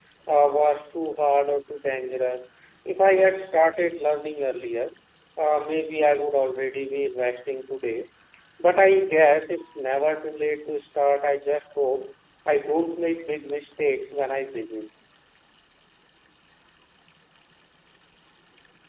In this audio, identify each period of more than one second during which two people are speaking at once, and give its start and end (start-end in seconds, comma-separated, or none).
none